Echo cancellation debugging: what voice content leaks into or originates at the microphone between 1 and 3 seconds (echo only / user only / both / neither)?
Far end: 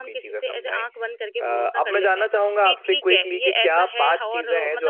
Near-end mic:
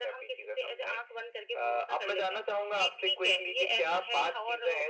echo only